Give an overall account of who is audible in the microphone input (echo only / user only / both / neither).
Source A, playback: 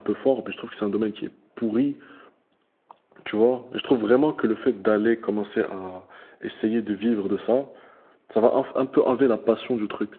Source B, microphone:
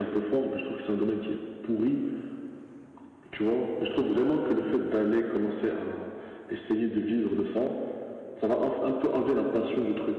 echo only